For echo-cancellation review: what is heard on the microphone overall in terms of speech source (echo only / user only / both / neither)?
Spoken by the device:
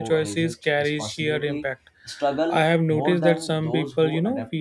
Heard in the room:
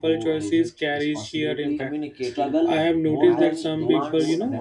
both